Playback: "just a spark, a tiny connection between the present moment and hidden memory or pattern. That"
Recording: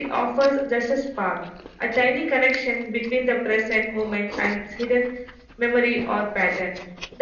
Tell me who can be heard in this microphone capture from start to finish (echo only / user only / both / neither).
echo only